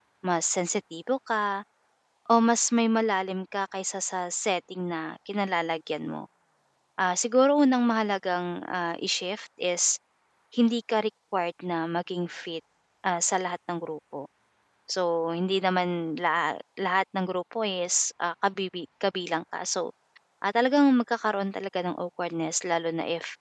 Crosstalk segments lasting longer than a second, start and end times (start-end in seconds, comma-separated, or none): none